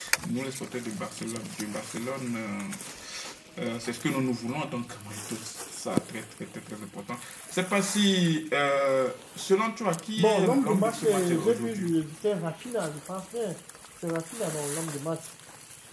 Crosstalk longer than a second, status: present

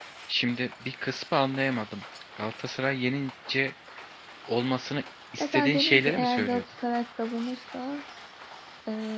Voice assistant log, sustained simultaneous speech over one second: present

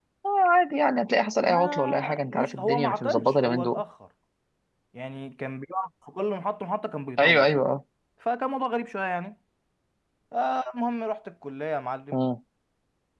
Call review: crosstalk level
present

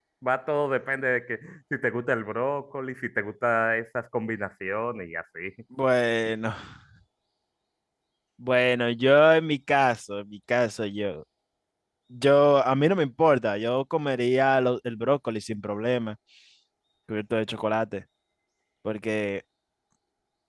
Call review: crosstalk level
none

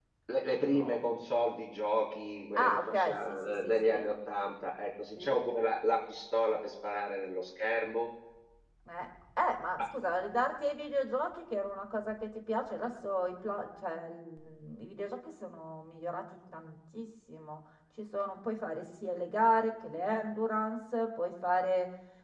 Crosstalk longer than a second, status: present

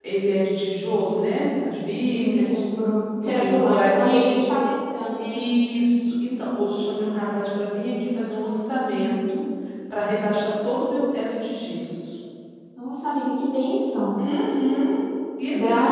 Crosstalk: present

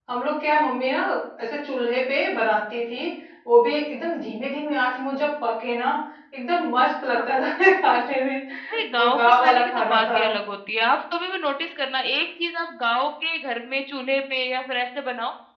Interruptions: present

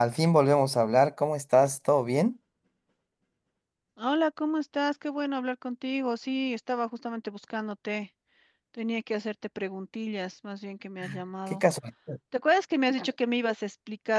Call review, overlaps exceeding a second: none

